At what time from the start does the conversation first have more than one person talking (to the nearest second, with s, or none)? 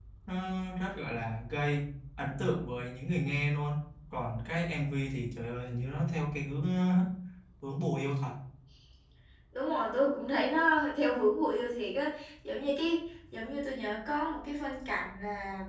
none